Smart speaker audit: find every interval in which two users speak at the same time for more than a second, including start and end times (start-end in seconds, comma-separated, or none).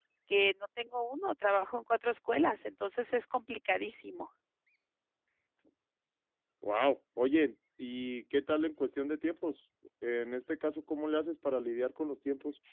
none